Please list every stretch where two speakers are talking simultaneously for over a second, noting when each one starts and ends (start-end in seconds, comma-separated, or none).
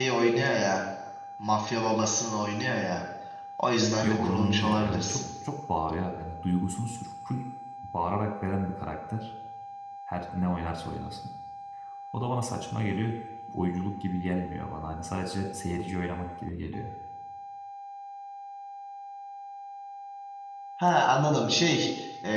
4.0-5.2